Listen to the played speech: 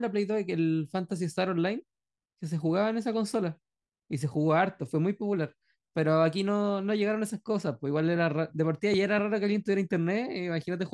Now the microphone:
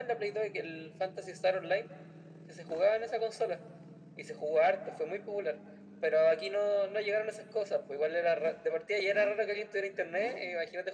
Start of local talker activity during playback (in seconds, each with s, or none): none